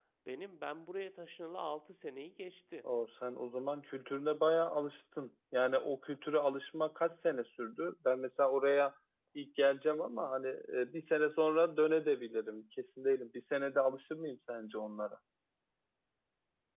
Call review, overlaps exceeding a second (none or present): none